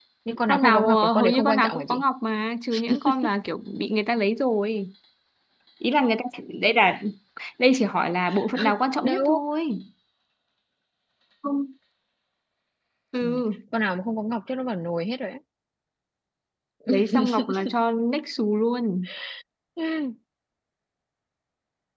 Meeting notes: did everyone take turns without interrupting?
No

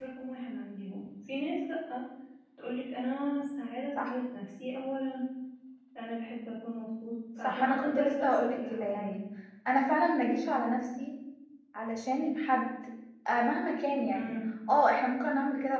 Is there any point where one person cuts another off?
Yes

